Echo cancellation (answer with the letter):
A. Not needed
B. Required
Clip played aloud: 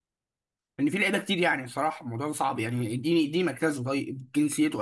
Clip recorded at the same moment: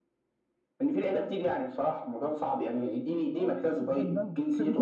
B